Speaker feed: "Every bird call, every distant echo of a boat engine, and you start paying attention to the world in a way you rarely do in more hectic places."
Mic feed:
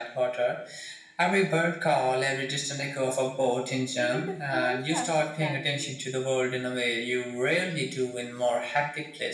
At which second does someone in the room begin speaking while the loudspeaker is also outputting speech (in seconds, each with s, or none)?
4.0 s